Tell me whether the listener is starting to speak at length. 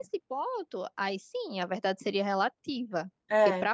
No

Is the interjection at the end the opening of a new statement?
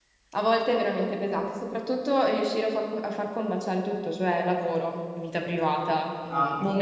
No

